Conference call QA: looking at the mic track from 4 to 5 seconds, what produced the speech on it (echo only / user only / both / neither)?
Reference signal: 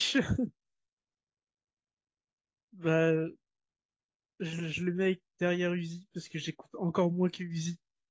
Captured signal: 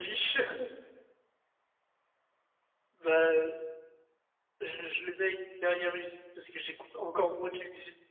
echo only